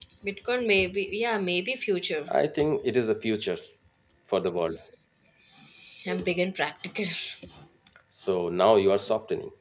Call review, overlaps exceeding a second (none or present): none